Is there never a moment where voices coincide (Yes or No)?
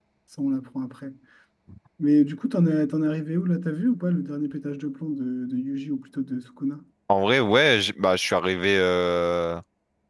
Yes